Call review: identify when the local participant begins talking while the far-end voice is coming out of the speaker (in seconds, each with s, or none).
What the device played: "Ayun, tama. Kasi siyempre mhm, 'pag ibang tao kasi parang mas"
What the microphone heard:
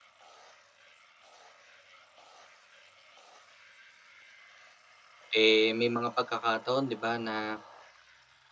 5.4 s